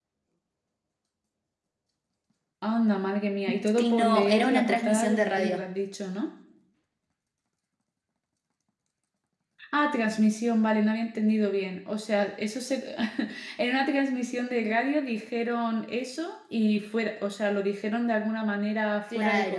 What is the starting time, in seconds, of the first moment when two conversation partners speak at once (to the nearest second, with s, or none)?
4 s